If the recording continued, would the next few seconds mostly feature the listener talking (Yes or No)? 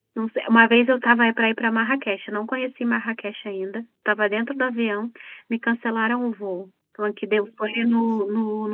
No